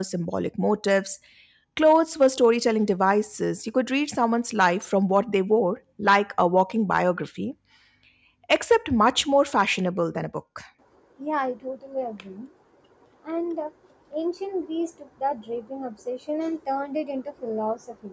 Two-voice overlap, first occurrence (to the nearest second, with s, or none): none